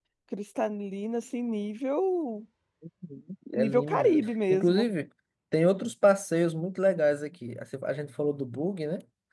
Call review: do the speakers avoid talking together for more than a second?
No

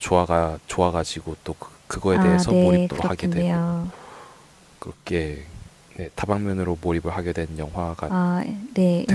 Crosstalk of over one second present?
Yes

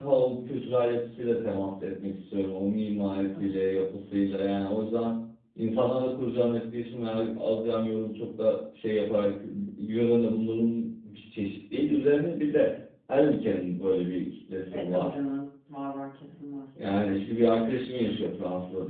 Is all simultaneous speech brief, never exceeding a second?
Yes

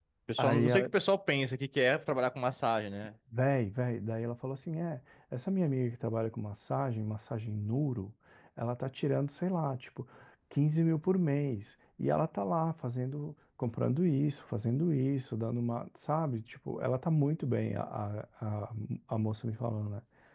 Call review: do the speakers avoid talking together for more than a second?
Yes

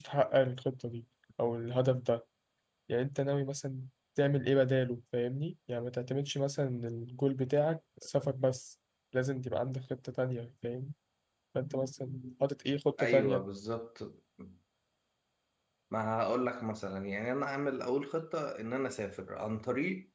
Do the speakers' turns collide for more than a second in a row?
No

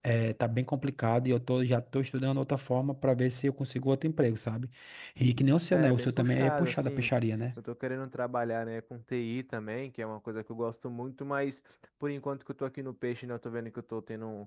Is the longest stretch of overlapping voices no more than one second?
No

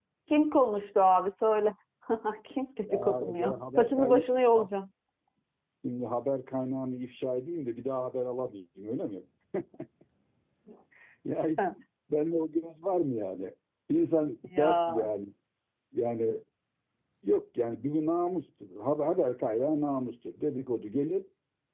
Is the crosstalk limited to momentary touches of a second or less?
No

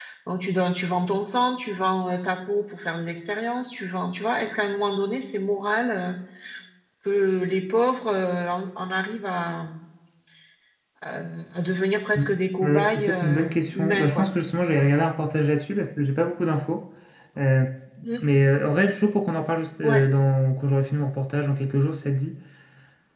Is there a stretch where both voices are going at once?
Yes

